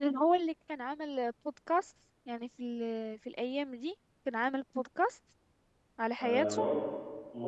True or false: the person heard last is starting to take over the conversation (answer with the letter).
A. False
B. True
B